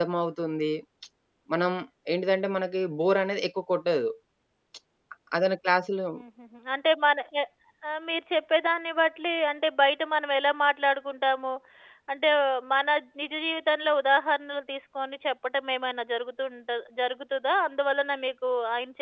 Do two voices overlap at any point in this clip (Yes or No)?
No